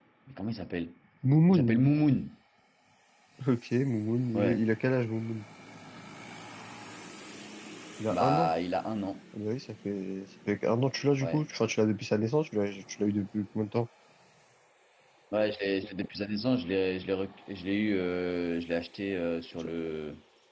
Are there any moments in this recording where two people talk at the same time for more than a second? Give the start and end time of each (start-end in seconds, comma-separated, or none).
none